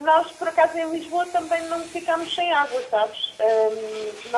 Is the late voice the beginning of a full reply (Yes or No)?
No